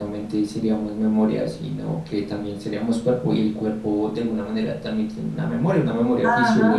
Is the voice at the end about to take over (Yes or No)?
Yes